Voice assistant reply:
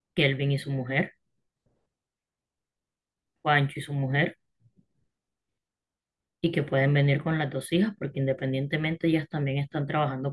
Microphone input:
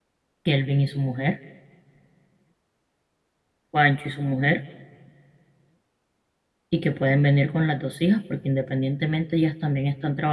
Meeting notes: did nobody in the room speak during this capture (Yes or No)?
Yes